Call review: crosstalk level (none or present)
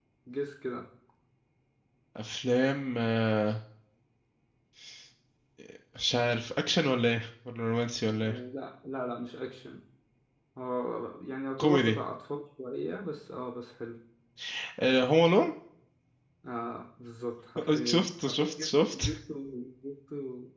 present